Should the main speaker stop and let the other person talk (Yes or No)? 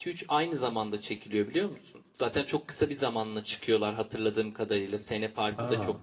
No